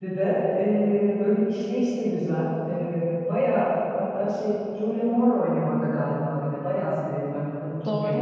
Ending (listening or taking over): taking over